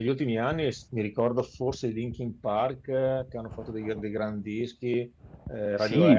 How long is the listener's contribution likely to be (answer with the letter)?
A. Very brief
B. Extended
B